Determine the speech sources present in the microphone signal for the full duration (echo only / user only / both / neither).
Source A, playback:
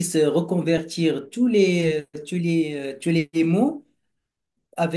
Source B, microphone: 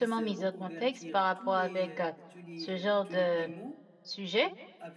both